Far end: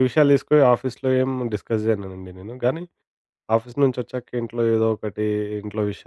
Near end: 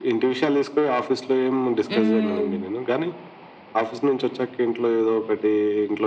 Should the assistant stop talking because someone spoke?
Yes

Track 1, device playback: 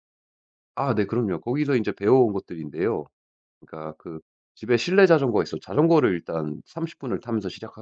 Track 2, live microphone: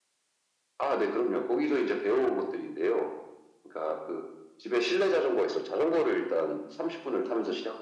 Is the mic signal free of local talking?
Yes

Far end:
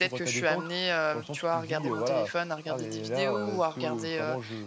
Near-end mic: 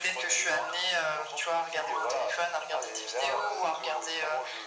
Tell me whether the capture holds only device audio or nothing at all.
Yes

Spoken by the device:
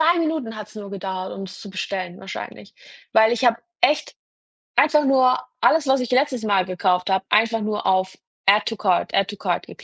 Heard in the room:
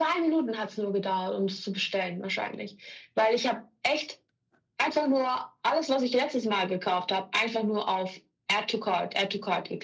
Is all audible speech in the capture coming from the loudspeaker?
Yes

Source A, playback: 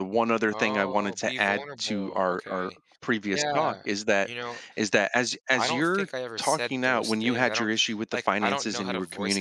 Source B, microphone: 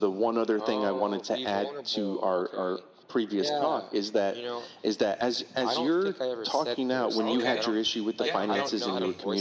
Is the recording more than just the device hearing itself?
Yes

